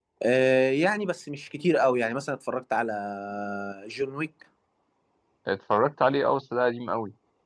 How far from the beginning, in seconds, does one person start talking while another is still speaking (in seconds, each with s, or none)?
none